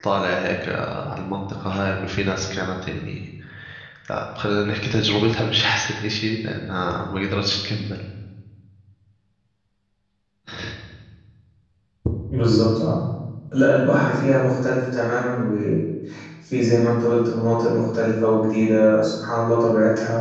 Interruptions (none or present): none